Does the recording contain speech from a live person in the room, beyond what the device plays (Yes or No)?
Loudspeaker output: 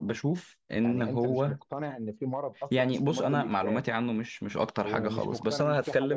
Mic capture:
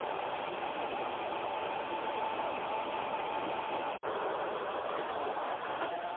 No